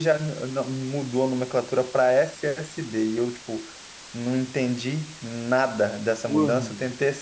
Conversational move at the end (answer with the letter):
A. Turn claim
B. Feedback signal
B